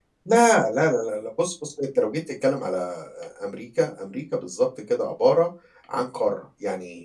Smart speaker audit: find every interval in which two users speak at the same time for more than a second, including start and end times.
none

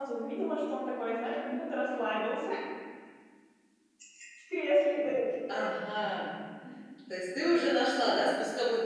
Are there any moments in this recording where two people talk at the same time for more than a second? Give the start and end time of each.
none

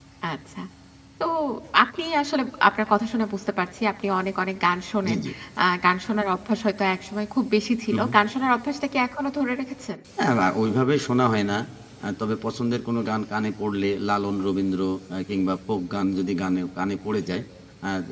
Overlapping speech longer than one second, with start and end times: none

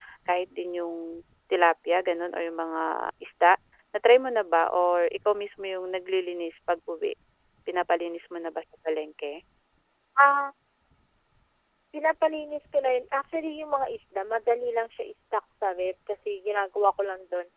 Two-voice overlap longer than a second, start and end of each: none

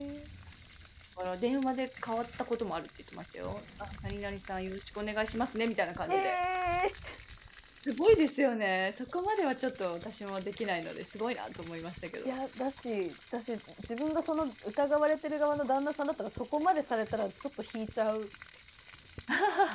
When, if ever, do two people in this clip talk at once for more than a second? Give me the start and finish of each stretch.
none

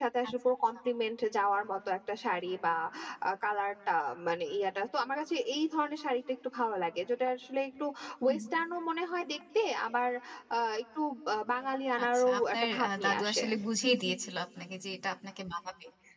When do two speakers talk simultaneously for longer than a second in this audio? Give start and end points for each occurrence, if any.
12.0-13.4

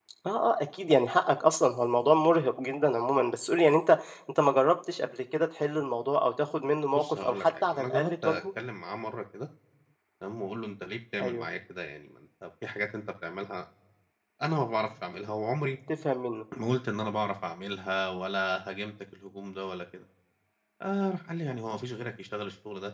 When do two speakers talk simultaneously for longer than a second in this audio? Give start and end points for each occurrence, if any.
7.0-8.4

